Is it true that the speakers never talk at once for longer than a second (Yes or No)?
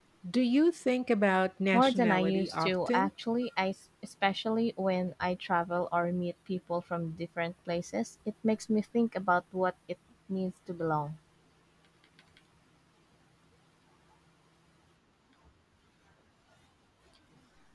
No